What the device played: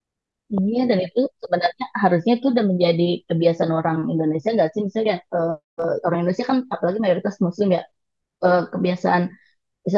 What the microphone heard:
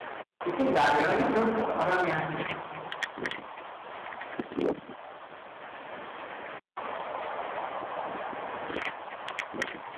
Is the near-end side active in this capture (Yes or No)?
Yes